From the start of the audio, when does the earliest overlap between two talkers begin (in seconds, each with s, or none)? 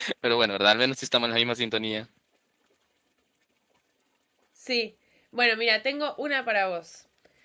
none